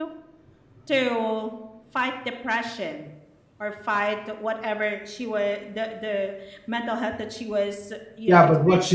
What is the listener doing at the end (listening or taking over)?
taking over